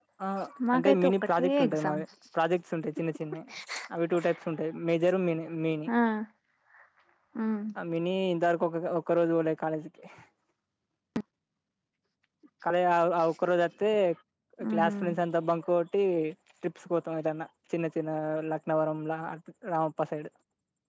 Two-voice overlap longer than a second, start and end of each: 0.8-2.0

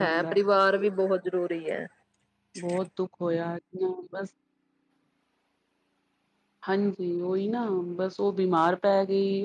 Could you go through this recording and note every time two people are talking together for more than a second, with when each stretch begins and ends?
none

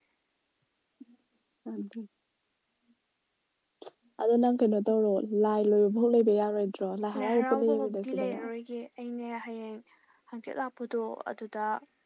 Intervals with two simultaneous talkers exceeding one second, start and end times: 7.2-8.4

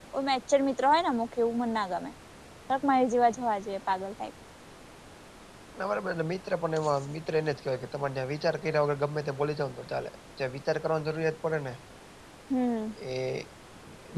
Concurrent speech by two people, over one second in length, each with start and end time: none

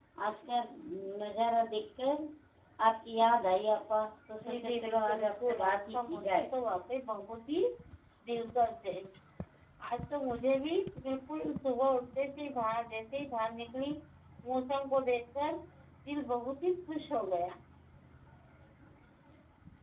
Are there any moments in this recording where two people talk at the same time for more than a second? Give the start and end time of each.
4.4-6.5

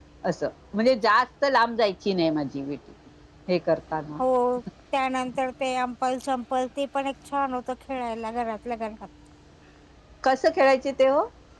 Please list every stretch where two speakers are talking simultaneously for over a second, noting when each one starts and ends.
none

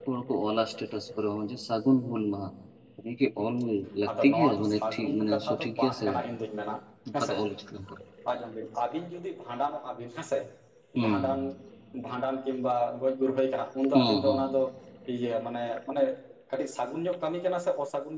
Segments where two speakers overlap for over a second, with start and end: 4.1-6.1

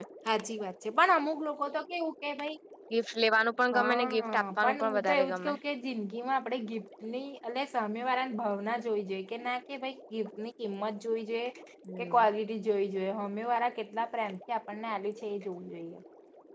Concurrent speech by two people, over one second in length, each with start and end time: 3.7-5.5

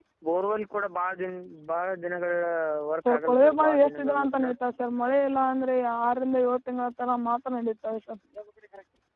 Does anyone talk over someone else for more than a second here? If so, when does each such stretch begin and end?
3.0-4.5

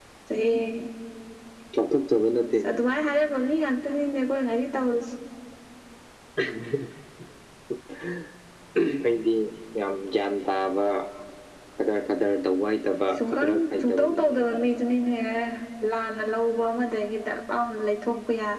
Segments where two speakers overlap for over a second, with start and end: 13.2-14.6

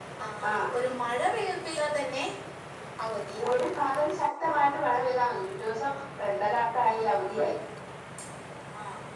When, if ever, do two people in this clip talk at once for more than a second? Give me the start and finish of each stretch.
none

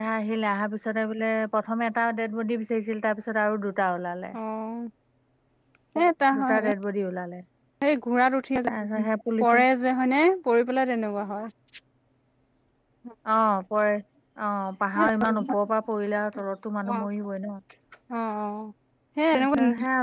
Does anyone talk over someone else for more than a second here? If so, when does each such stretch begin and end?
none

